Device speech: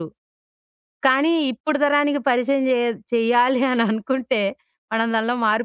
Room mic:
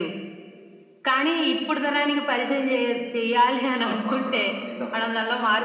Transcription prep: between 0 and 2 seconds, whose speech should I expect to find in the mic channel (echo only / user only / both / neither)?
echo only